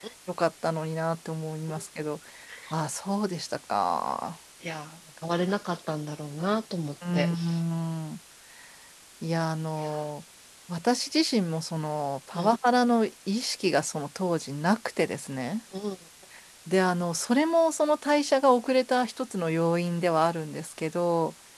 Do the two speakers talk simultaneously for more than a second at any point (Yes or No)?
No